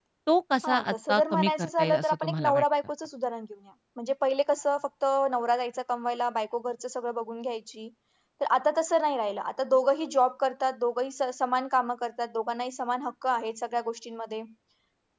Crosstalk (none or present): present